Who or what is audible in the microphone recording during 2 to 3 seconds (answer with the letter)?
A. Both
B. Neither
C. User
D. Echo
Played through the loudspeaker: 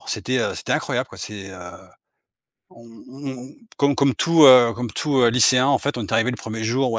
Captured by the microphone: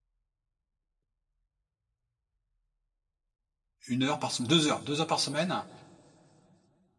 B